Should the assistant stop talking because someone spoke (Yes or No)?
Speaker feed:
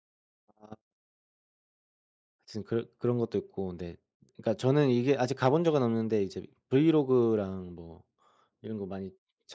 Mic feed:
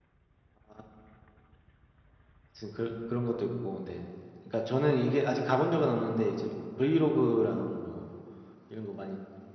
No